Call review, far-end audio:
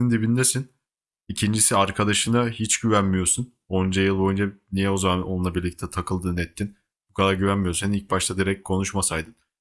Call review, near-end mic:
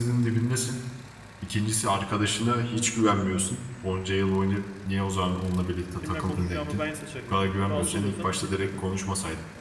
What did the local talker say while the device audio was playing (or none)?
Kimle konuşacağımı ben seçerim dedim. Rahatsız oluyorsan git dedim.